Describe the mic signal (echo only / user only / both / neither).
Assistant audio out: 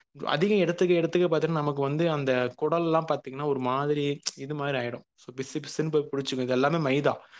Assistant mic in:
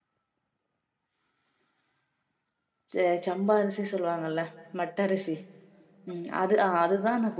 user only